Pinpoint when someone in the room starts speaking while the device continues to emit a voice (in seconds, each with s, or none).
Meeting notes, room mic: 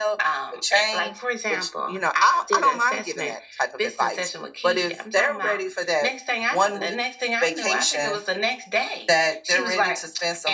none